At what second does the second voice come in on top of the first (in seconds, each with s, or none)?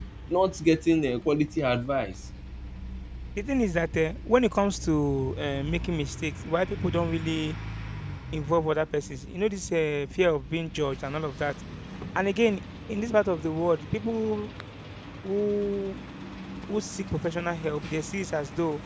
none